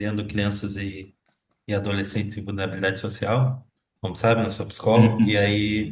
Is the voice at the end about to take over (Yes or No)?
No